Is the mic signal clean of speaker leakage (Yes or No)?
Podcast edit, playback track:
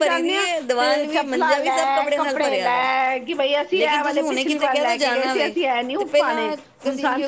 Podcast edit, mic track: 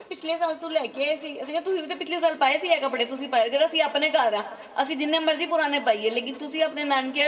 Yes